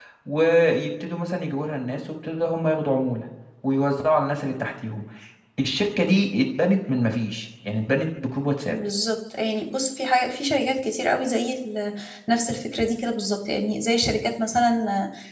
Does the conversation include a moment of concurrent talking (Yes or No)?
No